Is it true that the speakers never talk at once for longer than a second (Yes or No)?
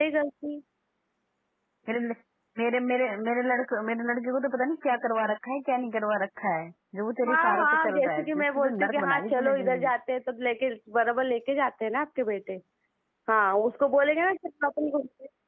No